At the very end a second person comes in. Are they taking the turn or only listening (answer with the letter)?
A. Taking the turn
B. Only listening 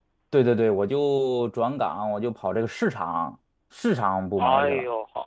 A